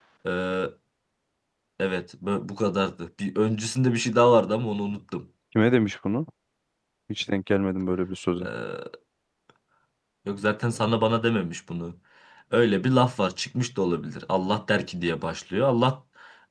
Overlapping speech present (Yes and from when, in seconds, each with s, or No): No